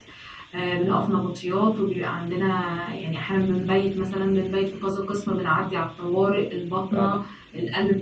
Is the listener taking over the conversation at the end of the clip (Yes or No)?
No